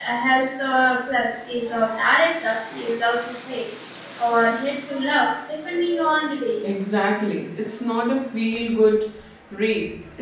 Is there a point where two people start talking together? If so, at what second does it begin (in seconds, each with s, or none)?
none